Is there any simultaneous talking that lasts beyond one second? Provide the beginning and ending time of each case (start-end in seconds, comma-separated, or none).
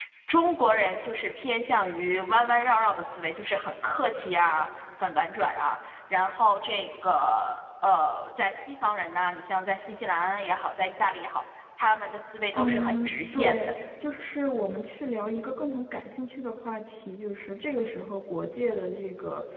12.5-13.7